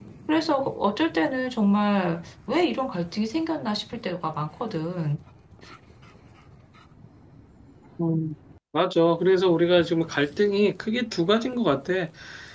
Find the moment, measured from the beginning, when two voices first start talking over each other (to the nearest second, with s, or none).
none